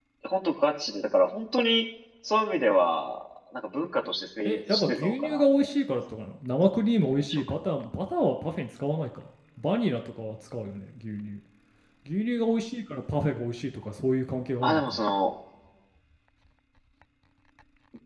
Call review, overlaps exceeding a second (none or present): present